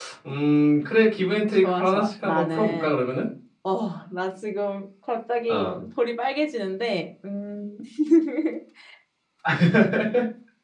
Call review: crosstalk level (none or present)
present